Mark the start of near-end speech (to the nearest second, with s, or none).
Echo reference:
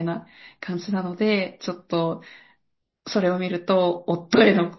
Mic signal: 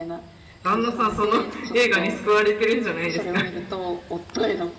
1 s